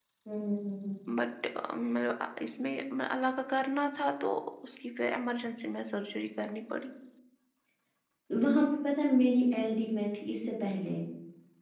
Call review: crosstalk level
none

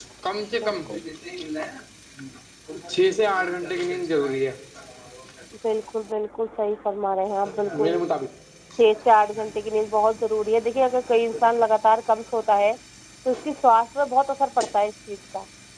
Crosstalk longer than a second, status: none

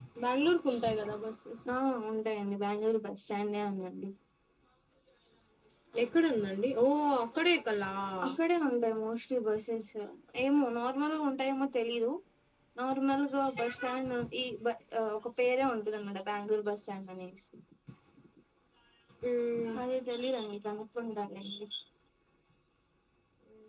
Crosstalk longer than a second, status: none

